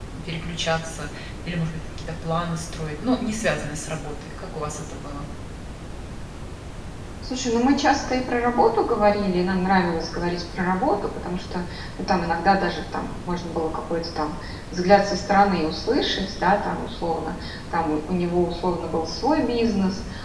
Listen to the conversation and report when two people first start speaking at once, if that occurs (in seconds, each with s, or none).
none